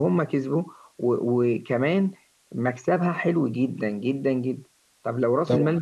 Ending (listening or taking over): listening